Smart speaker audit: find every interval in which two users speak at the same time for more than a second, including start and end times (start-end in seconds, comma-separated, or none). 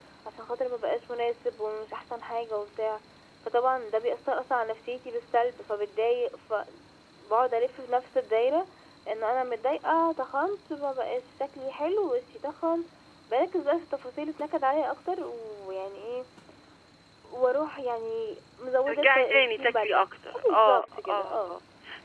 18.9-21.5